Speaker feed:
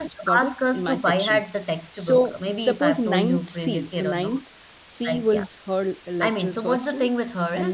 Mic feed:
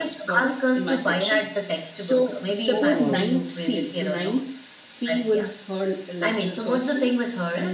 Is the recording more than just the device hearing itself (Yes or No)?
Yes